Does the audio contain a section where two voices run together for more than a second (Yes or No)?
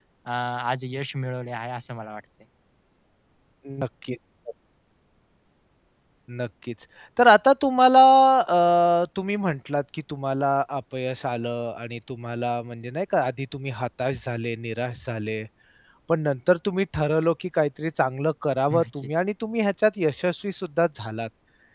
No